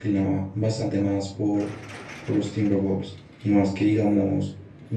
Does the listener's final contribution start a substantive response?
No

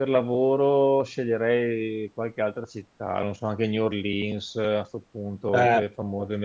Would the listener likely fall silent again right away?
Yes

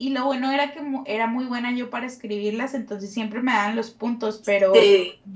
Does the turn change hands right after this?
No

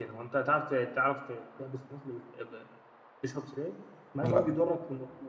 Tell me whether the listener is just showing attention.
Yes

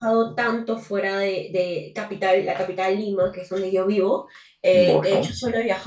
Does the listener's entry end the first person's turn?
No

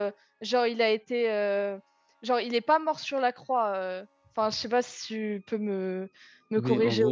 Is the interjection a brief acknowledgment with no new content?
No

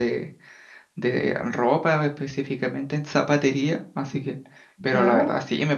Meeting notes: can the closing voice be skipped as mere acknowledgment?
Yes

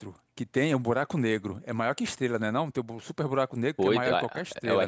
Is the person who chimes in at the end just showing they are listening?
No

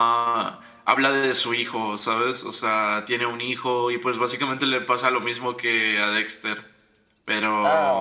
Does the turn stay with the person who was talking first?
No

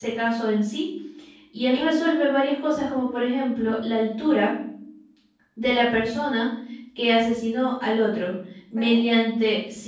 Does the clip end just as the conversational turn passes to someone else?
No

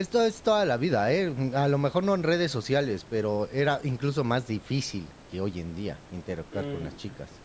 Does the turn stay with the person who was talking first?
No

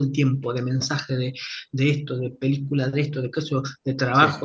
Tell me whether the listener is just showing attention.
Yes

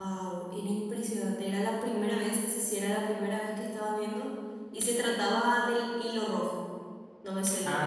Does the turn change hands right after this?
Yes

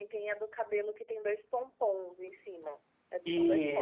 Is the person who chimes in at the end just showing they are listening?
No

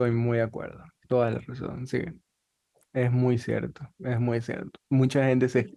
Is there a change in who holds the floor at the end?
No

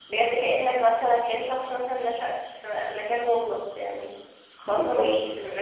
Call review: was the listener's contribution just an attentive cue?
Yes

